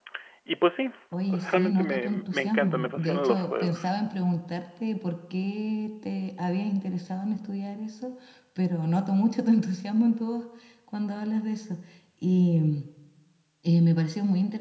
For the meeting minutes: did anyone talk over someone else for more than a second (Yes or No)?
Yes